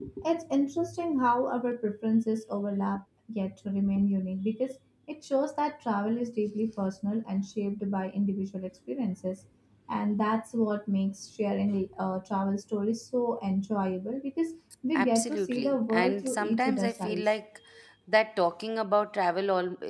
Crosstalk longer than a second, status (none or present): present